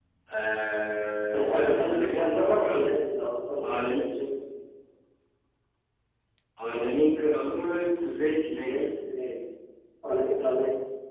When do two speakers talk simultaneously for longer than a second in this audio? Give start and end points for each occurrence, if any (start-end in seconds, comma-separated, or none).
1.4-2.9